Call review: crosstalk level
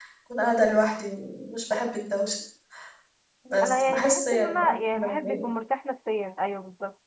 present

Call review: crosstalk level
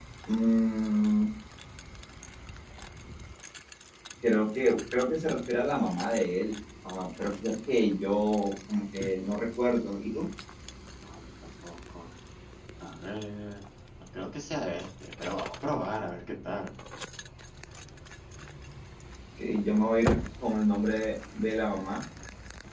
none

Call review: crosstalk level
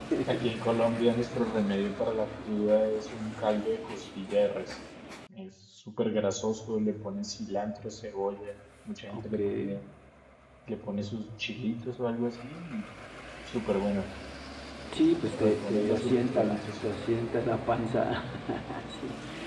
present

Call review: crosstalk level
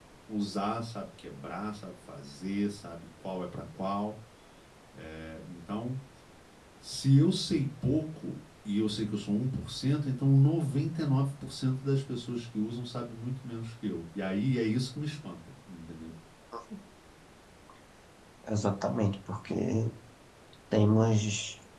none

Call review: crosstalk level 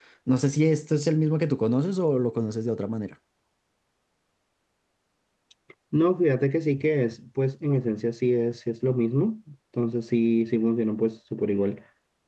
none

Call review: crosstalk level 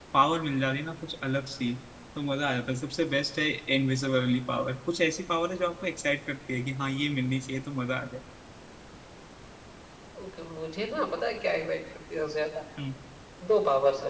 none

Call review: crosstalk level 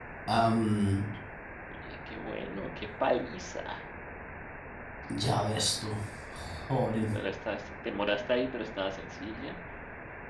none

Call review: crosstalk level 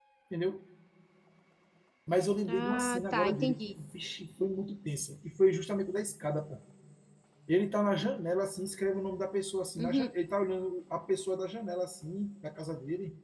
present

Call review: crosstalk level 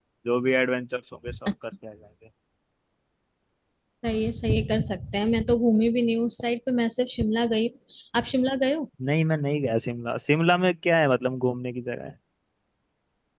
none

